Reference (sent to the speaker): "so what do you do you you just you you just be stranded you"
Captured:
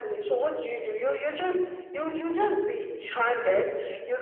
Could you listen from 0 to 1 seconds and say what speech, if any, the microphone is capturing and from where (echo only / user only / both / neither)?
echo only